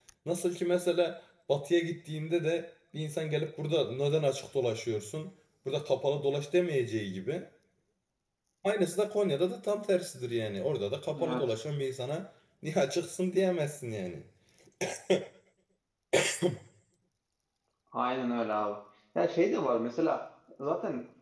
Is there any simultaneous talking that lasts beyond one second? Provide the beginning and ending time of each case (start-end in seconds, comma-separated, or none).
none